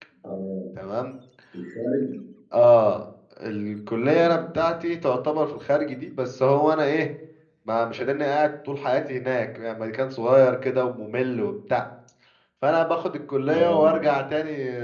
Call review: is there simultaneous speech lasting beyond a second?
No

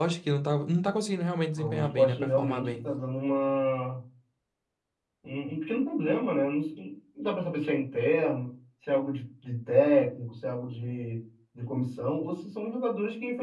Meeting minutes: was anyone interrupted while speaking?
Yes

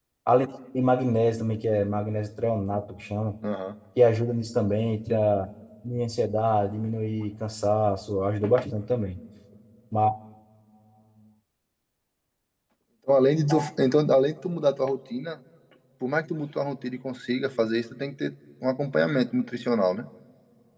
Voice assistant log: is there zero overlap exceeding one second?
Yes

